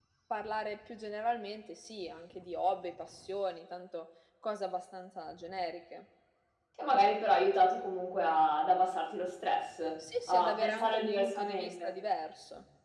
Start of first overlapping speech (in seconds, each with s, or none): 10.3 s